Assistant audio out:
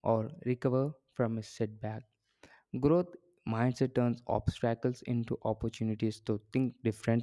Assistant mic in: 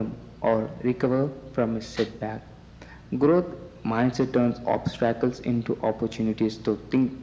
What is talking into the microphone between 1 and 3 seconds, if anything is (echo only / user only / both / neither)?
echo only